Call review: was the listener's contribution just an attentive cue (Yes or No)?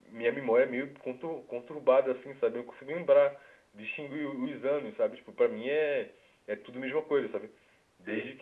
Yes